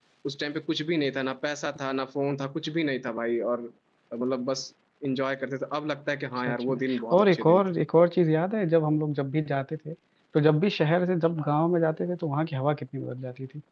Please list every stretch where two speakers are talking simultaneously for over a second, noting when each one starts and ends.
6.4-7.6

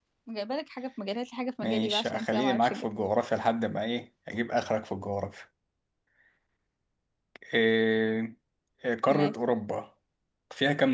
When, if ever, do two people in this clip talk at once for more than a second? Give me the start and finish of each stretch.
1.6-2.8

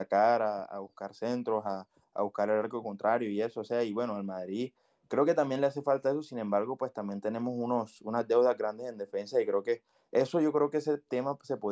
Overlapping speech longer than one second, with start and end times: none

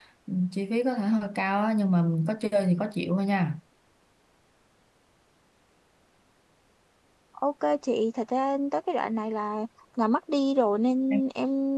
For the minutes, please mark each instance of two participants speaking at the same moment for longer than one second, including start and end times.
none

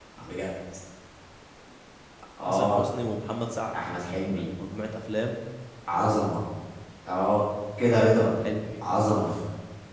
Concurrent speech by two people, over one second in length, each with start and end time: none

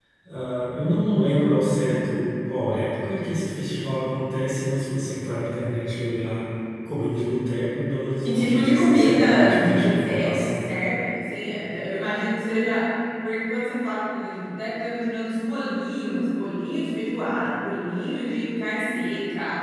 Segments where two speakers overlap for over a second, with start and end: 8.2-10.6

